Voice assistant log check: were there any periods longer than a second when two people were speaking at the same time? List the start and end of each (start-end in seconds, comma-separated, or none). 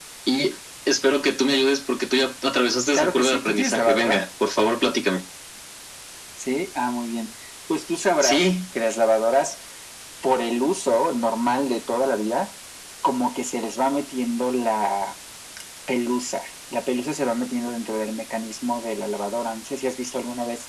2.9-4.2